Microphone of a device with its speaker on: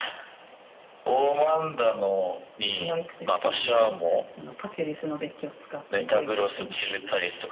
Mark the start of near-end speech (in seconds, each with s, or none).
2.7 s